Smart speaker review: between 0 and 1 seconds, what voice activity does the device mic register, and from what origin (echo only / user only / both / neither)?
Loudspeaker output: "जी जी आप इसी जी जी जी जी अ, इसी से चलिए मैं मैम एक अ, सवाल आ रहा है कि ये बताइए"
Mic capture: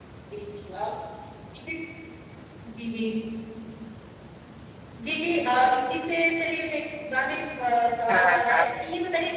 echo only